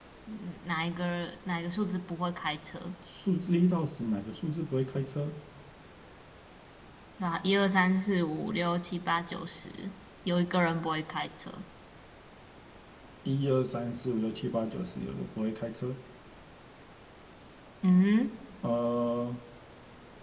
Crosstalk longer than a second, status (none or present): none